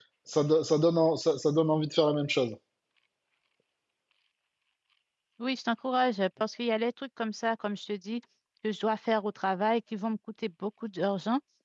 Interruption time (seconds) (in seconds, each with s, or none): none